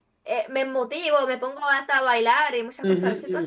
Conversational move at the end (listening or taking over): taking over